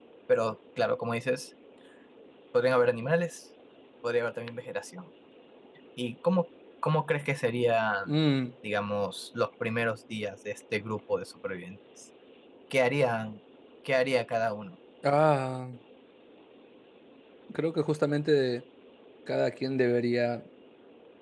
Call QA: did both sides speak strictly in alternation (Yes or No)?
Yes